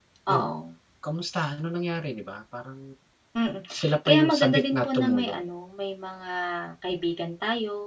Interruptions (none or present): present